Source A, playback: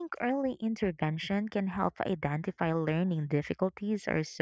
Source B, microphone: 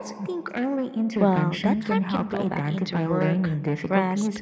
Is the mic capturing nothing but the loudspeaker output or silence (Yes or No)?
No